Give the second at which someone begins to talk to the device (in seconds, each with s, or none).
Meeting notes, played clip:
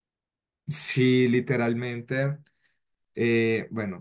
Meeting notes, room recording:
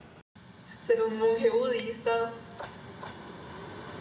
0.8 s